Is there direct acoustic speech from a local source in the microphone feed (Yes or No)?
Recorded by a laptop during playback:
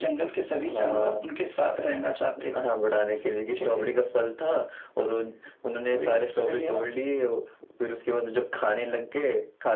No